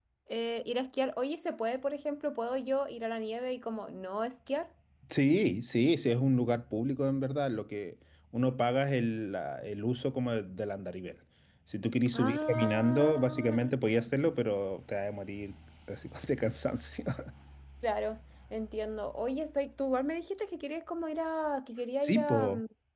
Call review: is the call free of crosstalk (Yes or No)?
No